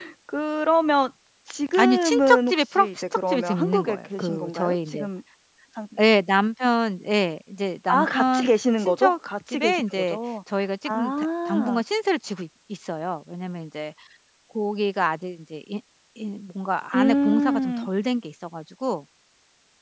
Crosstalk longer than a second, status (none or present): present